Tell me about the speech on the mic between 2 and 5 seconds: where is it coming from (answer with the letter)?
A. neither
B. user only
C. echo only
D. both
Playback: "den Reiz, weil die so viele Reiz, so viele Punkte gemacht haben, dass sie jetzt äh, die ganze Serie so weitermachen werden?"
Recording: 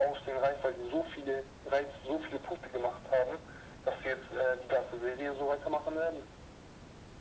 C